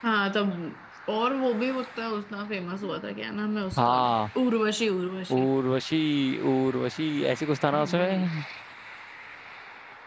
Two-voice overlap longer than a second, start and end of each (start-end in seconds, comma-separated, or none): none